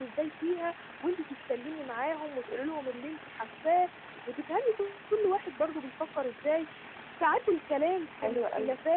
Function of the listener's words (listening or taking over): listening